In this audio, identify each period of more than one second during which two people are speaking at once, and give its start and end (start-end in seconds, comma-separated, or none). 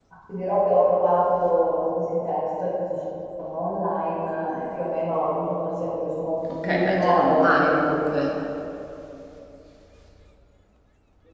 6.5-8.0